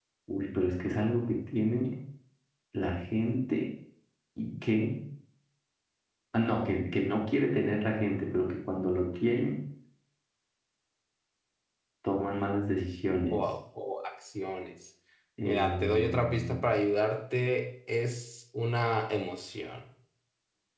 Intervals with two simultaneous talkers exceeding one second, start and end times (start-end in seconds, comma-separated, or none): 15.4-16.7